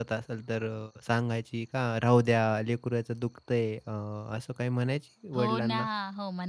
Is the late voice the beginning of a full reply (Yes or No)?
Yes